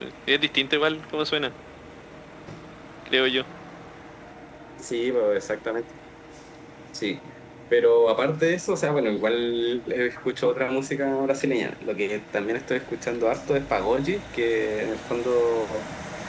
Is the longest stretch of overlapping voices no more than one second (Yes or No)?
Yes